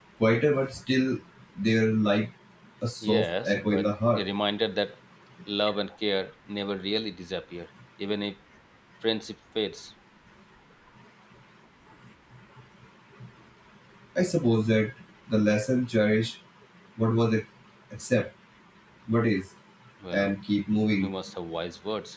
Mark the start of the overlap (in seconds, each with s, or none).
3.0 s